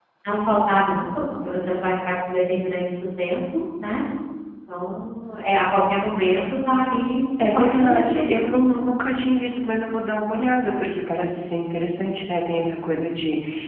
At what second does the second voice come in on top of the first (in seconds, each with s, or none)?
7.4 s